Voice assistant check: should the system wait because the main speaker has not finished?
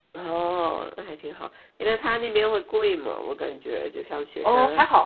No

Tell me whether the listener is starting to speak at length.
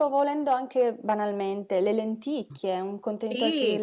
Yes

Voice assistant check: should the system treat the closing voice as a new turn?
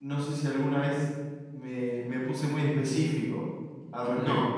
Yes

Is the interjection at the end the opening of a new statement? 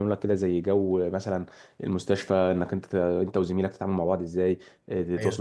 No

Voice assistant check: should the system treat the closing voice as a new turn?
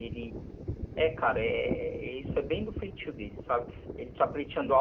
No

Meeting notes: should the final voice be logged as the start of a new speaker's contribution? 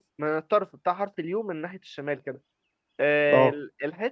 No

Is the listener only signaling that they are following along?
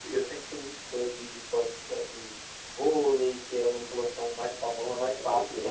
No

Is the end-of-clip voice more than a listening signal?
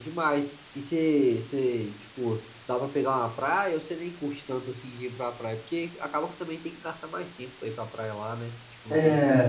Yes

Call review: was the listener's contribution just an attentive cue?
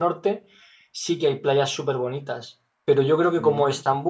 Yes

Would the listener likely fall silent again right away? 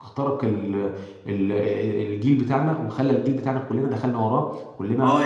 No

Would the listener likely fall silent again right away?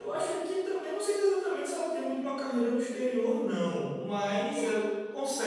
Yes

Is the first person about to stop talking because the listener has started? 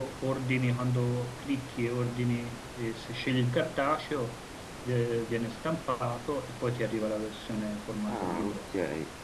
Yes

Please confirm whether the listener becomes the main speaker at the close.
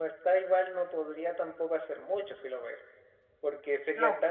No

